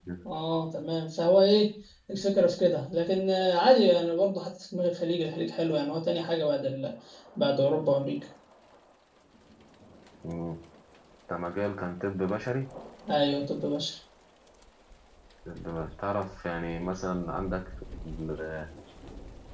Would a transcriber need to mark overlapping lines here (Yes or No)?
No